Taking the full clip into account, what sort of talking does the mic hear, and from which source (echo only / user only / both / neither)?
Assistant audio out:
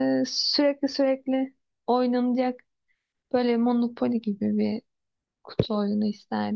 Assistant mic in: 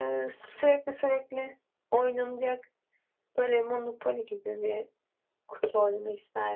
echo only